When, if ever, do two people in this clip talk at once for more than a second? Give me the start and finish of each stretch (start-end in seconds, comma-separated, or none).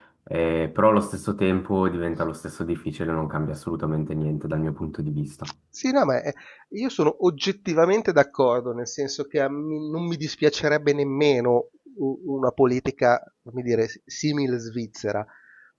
none